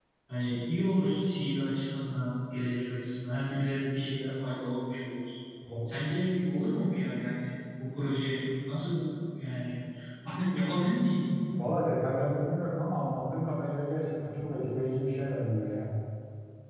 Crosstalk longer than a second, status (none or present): none